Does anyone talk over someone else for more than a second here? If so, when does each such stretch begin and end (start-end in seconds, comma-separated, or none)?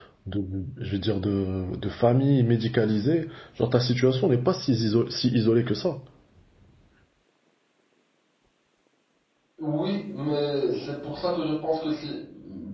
none